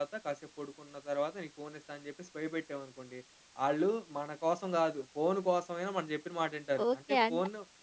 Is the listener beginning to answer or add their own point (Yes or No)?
Yes